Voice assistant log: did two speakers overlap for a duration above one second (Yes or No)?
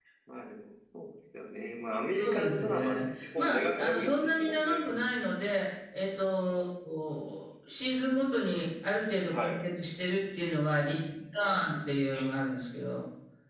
Yes